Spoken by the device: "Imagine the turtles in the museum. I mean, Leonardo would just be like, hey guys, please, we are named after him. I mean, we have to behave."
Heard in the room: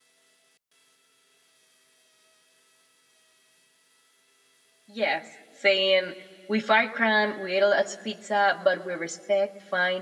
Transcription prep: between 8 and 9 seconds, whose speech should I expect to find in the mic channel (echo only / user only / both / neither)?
user only